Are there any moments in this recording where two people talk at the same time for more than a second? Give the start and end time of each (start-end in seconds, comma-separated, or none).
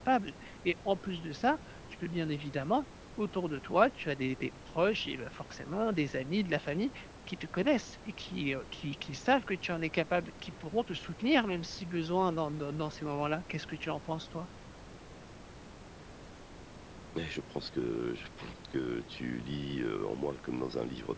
none